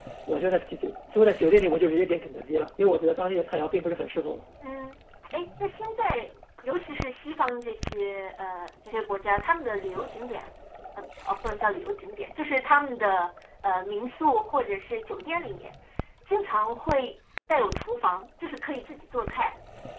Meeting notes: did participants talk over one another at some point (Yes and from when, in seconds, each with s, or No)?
No